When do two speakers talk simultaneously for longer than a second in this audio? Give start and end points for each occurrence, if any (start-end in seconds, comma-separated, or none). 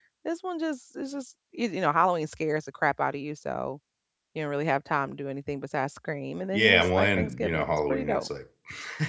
6.5-8.3